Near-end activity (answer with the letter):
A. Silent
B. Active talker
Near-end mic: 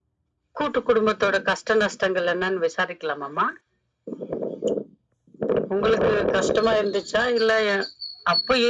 A